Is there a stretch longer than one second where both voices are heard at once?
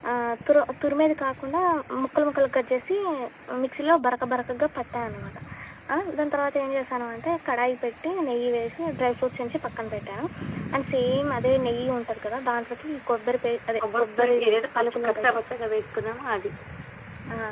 Yes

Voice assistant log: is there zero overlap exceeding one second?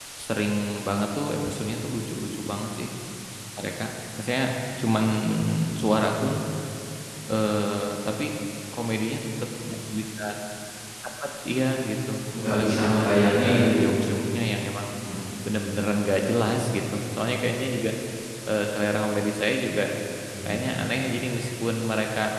No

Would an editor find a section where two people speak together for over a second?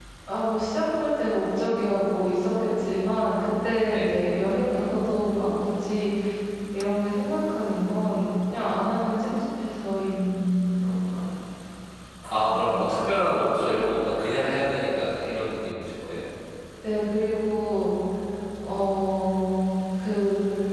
No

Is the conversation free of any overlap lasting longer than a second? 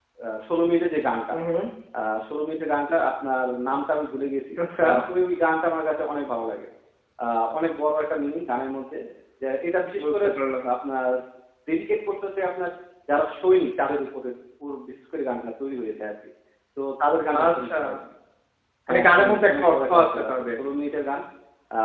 No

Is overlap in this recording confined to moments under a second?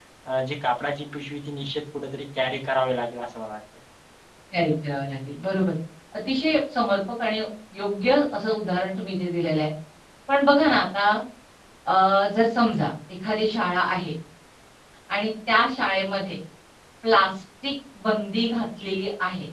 Yes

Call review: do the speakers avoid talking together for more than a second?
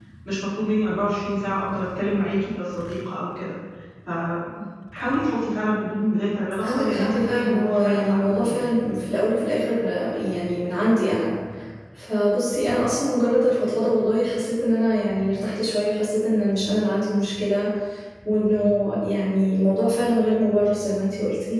No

